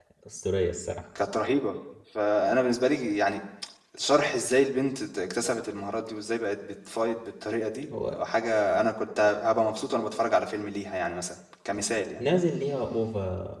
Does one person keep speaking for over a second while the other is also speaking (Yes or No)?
No